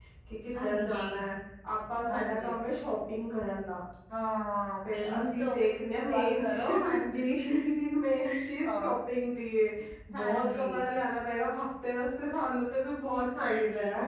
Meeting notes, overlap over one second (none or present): present